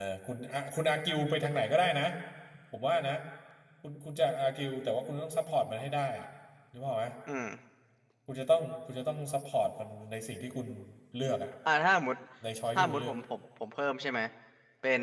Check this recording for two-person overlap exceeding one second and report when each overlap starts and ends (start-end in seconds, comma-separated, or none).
none